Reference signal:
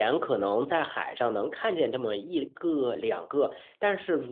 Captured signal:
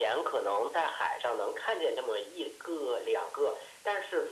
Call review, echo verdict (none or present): present